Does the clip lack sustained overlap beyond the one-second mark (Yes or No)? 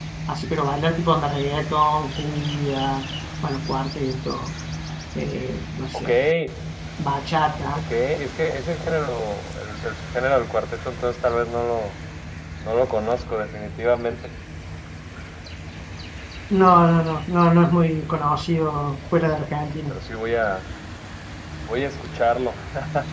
Yes